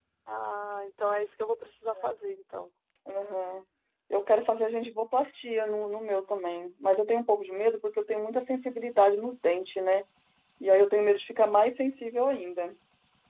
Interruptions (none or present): none